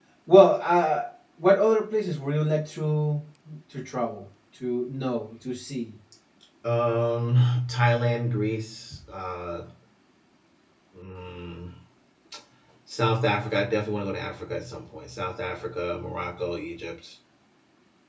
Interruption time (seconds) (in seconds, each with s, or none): none